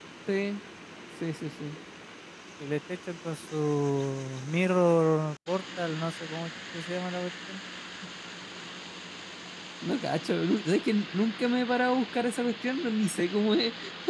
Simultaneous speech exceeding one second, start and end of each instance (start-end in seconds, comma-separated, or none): none